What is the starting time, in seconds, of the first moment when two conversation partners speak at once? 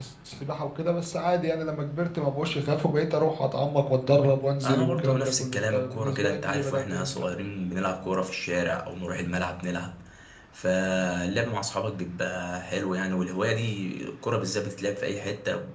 4.6 s

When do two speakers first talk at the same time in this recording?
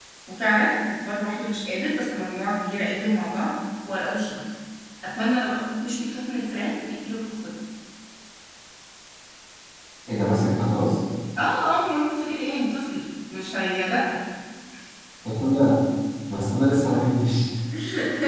none

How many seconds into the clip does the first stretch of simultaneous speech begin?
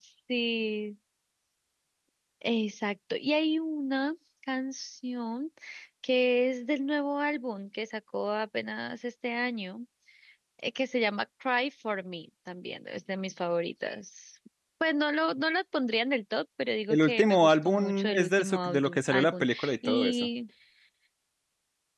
16.9 s

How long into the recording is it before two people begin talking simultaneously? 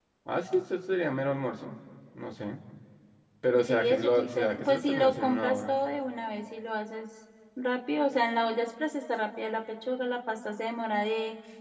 3.6 s

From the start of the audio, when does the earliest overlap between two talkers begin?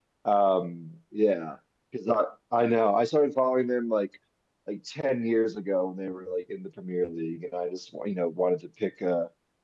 none

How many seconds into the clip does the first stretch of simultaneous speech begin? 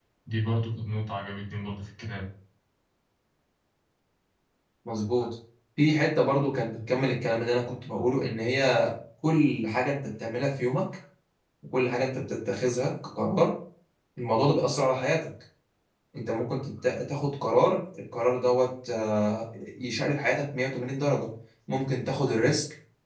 none

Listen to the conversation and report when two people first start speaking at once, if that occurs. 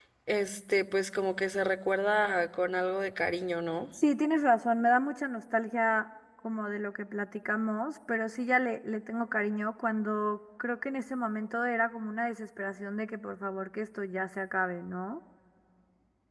none

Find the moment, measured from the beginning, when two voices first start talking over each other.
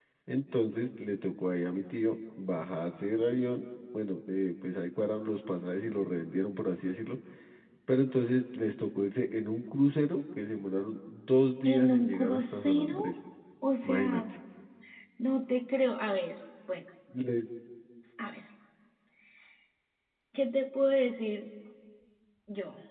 11.6 s

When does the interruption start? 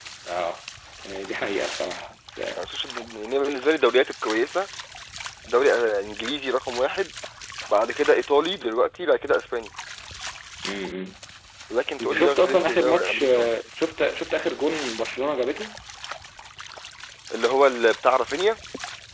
12.0 s

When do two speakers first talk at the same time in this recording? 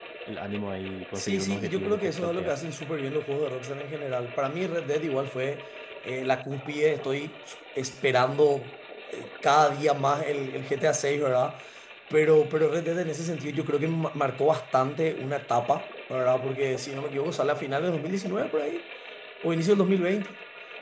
1.1 s

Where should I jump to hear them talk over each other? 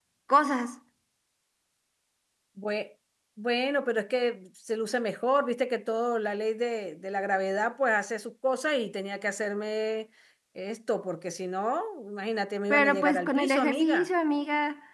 12.7 s

